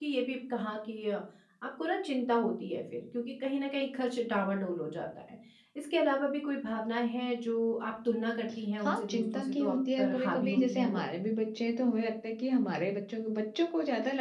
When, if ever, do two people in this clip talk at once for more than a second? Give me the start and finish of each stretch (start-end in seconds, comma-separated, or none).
8.8-11.0